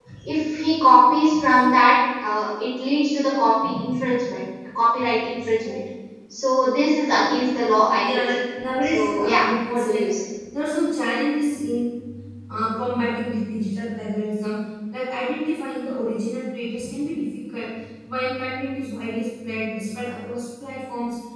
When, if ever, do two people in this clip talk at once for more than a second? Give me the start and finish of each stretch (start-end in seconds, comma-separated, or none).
8.8-10.1